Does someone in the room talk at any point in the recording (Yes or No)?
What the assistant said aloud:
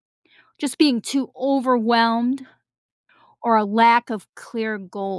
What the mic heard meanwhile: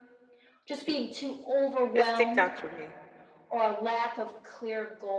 Yes